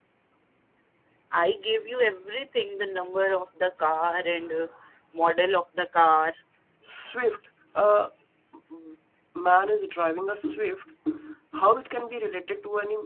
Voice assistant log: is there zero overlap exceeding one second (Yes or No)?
Yes